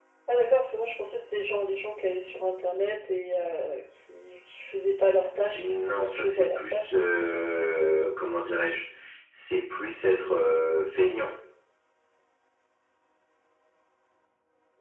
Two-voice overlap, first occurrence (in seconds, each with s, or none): 5.5 s